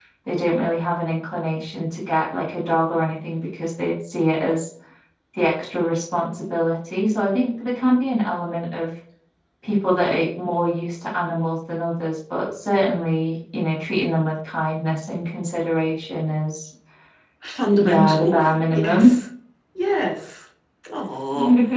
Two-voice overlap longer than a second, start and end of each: 17.8-19.2

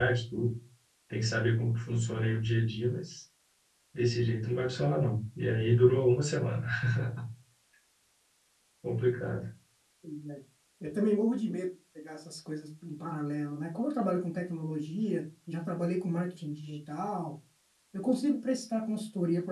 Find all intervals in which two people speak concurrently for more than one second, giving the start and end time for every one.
none

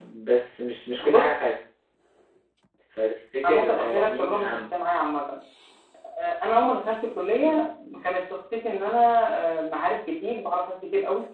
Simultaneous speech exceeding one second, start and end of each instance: 3.5-4.7

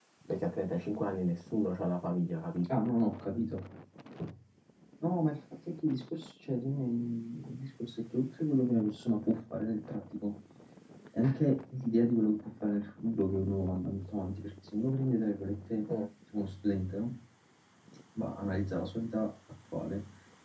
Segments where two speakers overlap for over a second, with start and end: none

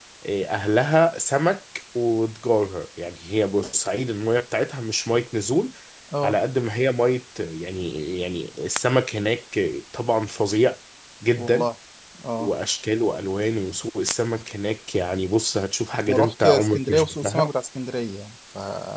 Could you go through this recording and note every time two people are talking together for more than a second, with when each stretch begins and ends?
16.1-17.5

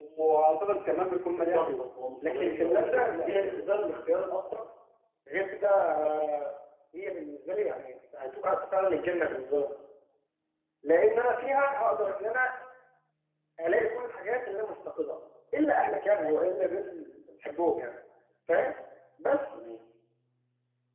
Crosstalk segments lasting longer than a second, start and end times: 2.2-3.7

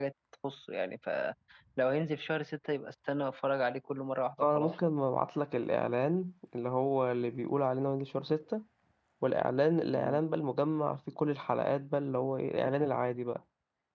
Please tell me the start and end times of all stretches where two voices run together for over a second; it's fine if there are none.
none

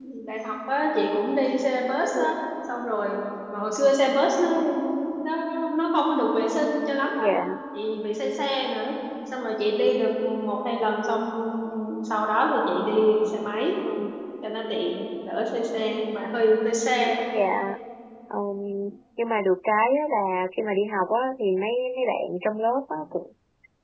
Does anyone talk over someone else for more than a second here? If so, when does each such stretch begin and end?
none

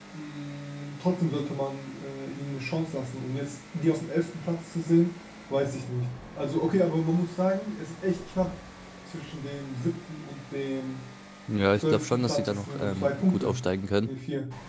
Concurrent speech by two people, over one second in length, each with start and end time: 11.8-13.6

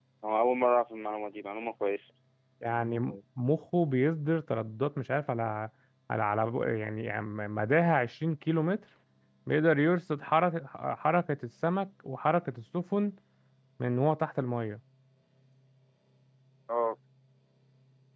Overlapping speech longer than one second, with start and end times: none

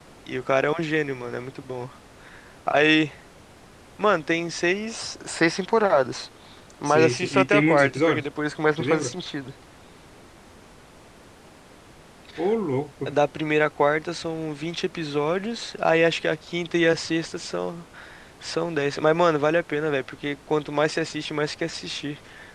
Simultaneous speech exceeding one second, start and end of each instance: 6.8-8.2

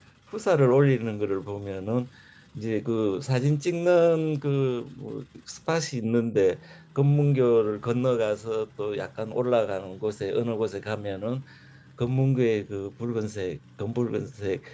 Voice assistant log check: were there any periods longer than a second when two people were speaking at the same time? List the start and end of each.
none

